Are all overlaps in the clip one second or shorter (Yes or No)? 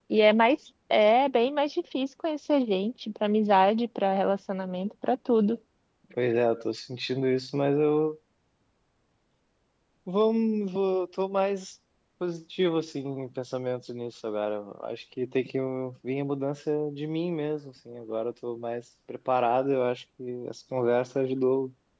Yes